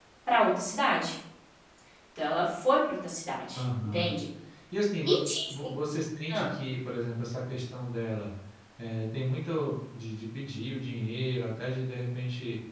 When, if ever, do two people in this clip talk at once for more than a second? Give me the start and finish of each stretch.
none

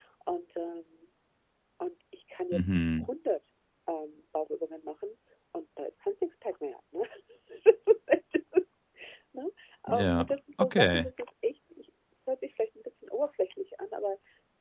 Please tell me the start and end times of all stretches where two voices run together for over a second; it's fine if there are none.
9.9-11.1

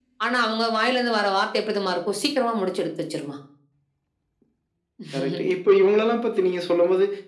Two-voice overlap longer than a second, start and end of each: none

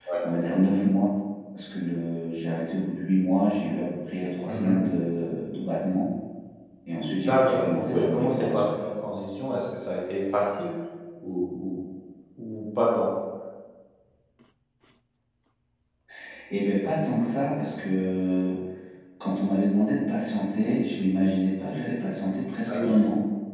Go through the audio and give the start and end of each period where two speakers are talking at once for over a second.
7.2-8.7

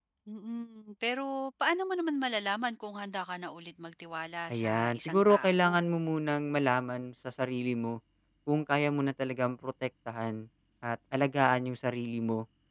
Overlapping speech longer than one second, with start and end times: 4.5-5.8

